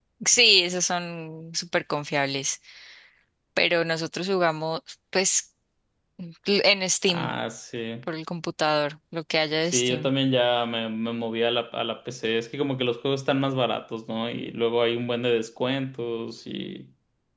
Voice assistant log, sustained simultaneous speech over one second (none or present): none